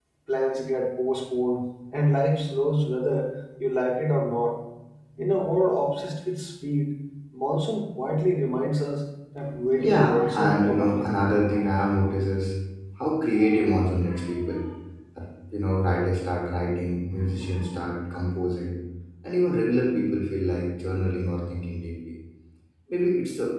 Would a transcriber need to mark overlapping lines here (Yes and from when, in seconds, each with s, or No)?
Yes, from 9.4 s